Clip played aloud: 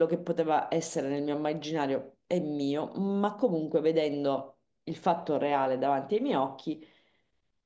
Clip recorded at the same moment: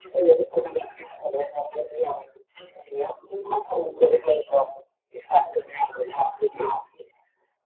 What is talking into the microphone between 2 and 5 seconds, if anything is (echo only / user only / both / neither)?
echo only